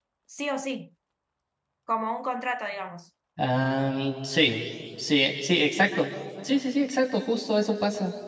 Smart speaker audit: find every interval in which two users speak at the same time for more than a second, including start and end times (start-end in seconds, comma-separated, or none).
none